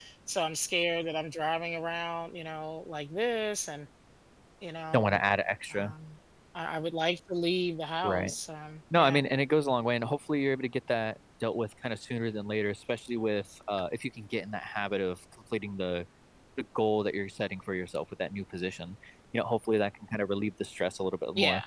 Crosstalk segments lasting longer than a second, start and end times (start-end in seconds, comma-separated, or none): none